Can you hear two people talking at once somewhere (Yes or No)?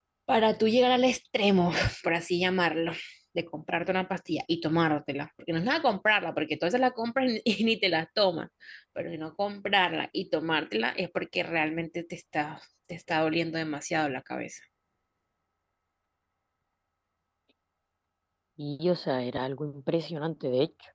No